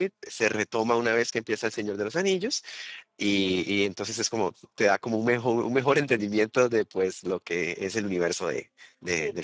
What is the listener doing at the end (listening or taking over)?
taking over